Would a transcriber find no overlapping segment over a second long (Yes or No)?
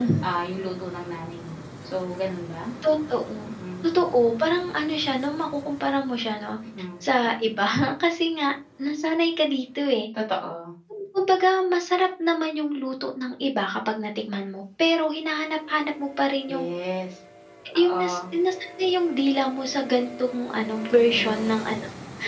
Yes